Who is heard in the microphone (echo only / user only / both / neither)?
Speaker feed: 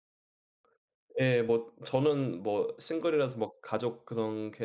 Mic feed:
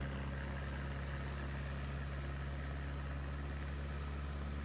neither